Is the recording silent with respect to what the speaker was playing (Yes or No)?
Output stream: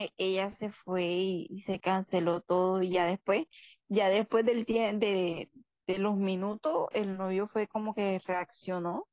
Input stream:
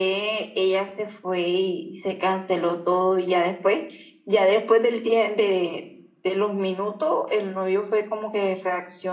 No